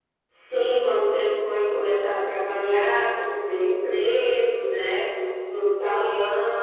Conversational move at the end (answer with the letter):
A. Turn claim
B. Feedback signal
B